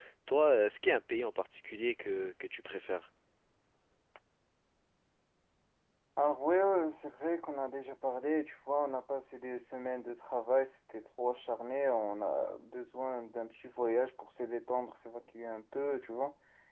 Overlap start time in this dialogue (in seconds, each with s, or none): none